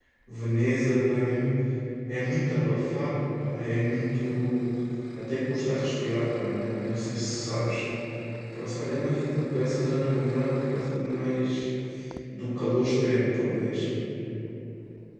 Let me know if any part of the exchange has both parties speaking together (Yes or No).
No